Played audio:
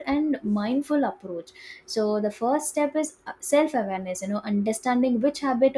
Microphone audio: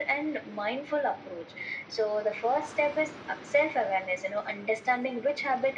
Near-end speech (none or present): none